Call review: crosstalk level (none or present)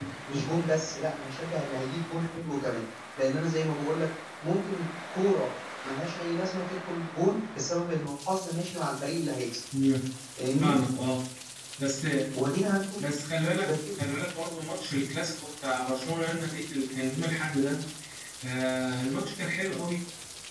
none